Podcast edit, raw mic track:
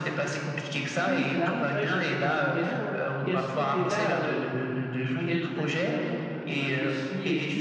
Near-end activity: present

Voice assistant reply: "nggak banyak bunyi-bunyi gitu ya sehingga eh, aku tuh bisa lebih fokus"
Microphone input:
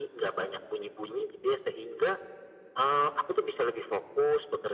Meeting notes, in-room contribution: none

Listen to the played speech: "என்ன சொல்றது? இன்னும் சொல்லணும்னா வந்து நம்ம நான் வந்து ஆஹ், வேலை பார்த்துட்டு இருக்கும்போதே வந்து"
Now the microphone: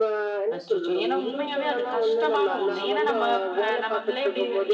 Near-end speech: present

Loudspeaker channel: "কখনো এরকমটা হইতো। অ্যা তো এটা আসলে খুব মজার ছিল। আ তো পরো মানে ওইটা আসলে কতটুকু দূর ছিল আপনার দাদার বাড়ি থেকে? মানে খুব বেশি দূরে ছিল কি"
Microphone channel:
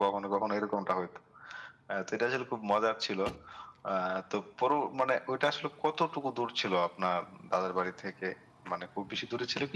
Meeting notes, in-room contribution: none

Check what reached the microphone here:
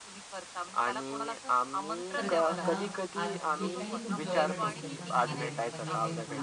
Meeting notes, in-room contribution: present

